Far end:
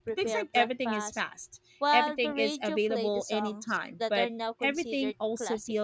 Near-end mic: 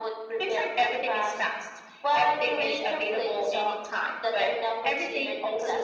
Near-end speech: none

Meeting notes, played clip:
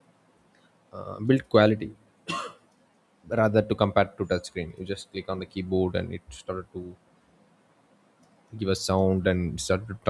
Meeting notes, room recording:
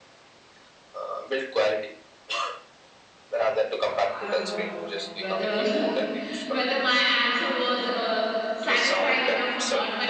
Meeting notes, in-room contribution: present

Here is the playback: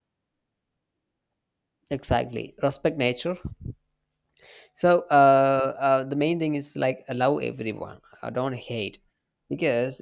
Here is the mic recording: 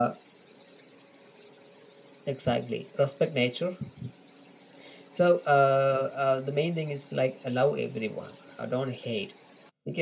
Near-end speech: none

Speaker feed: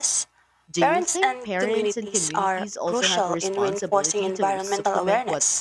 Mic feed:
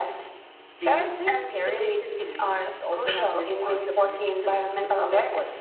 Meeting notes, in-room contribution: none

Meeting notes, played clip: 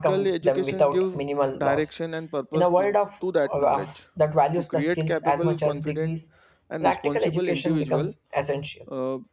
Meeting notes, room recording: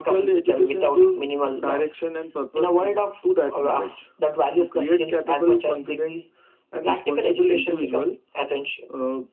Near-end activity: none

